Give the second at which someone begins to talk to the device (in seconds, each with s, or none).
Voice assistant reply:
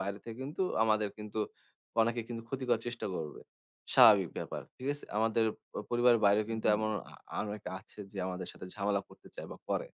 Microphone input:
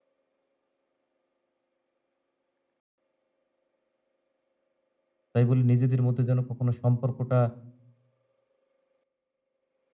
5.3 s